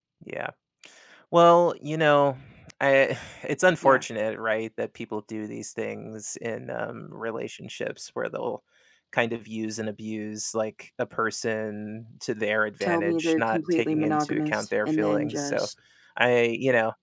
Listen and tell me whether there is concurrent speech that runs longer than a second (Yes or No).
Yes